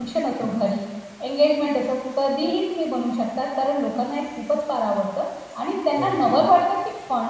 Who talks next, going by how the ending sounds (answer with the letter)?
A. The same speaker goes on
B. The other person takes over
A